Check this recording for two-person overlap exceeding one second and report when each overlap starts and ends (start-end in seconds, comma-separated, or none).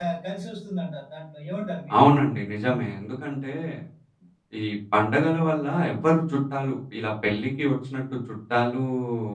none